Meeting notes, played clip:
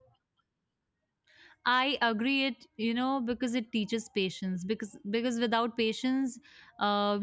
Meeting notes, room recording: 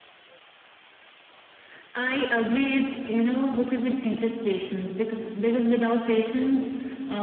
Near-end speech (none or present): none